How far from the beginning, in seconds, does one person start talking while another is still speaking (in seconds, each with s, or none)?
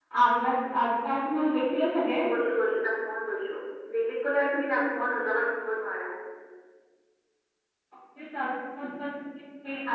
none